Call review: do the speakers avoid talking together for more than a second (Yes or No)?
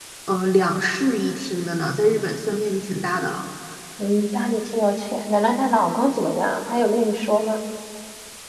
Yes